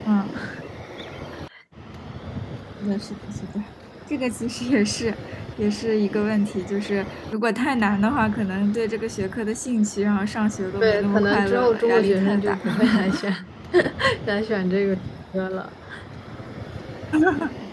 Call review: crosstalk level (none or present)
present